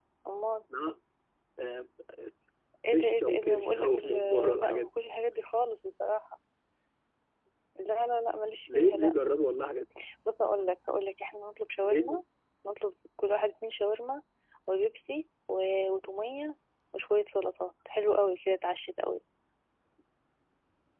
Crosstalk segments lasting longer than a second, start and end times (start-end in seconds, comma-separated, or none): 2.9-4.9